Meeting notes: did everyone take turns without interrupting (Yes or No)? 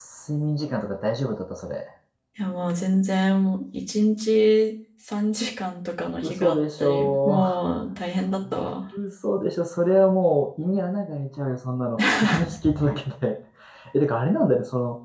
No